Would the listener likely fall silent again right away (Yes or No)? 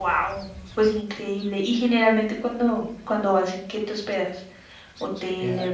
No